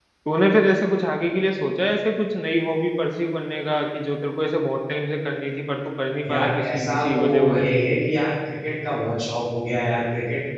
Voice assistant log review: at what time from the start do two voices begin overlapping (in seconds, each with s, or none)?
6.2 s